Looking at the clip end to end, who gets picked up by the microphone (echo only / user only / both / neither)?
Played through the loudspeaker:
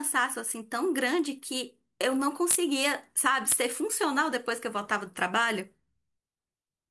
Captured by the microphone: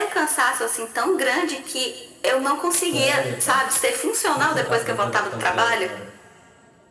both